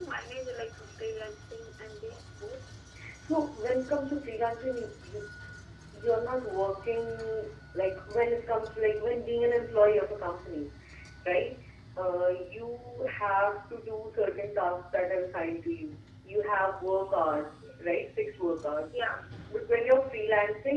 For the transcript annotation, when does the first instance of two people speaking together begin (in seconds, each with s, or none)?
none